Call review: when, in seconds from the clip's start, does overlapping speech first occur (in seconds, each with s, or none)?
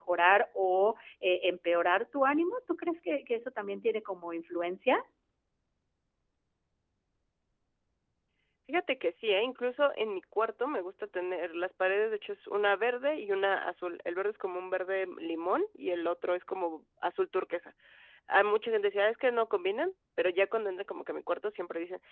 none